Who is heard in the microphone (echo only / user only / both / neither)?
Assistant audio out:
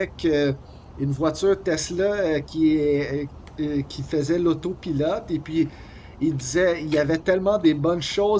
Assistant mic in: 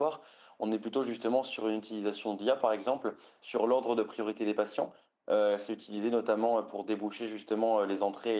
user only